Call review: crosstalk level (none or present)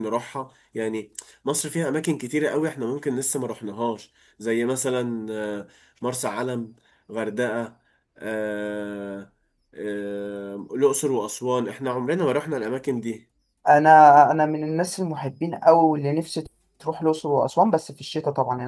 none